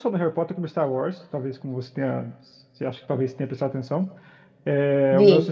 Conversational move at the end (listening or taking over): listening